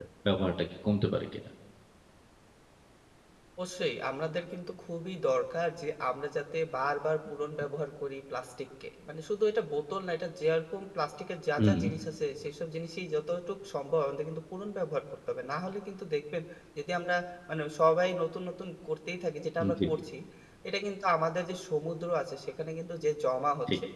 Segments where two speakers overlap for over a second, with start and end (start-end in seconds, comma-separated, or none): none